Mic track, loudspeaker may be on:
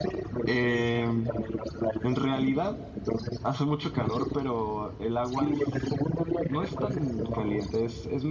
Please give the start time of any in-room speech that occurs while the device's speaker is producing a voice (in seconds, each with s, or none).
0.5 s